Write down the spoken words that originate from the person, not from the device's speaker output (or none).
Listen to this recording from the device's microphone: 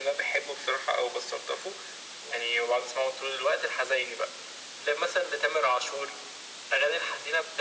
none